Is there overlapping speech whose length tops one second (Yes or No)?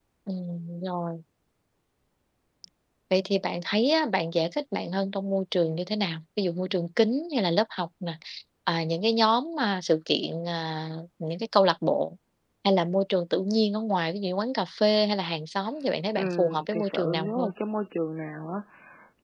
Yes